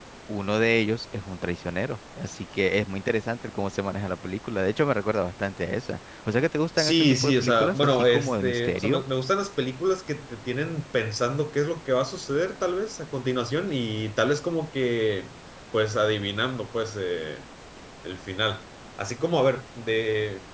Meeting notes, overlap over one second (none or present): present